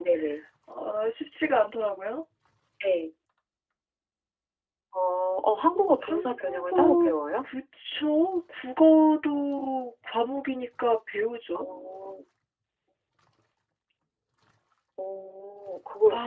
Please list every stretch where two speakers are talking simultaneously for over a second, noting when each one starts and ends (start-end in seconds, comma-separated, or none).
6.0-7.5